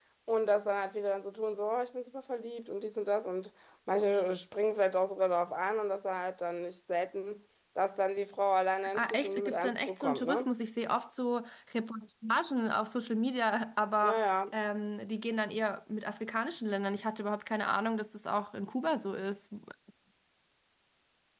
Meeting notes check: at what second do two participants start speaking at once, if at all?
8.9 s

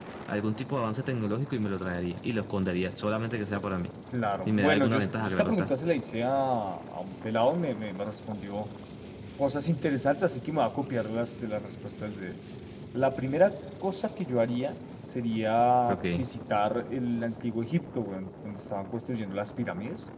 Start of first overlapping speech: 4.5 s

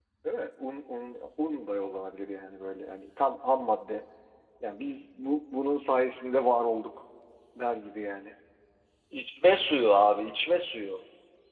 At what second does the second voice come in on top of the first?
none

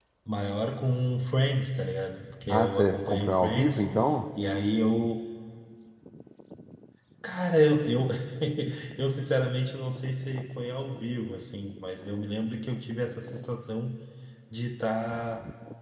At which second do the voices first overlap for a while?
2.5 s

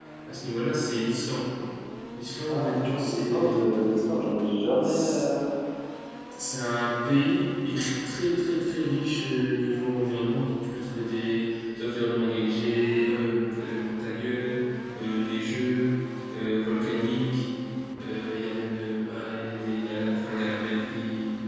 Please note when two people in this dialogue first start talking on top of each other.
2.5 s

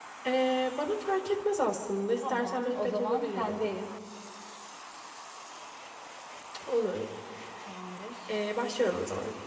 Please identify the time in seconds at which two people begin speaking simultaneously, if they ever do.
2.2 s

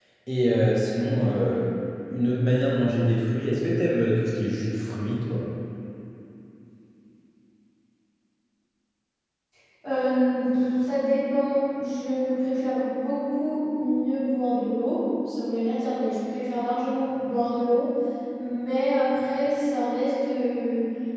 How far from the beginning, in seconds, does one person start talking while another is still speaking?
none

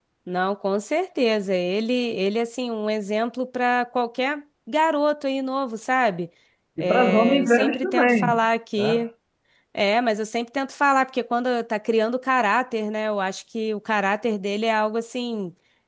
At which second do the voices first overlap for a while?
6.8 s

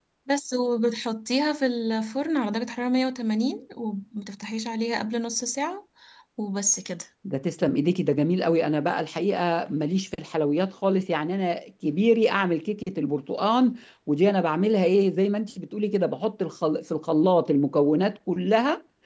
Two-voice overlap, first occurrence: none

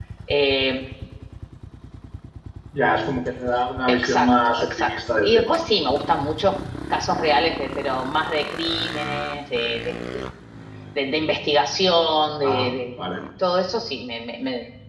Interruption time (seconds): 3.9 s

